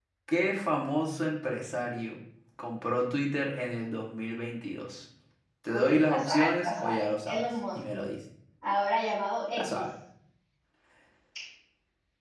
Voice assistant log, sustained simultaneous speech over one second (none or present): present